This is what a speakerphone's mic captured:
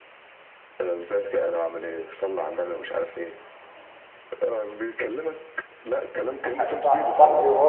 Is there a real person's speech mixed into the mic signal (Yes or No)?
Yes